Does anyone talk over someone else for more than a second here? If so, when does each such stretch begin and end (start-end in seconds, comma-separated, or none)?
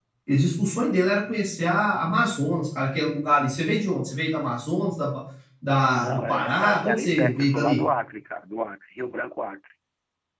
6.0-7.8